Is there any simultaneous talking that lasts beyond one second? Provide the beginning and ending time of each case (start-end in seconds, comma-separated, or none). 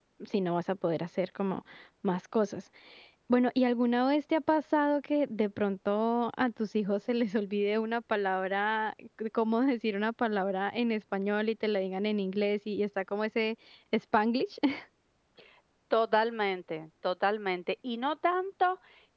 none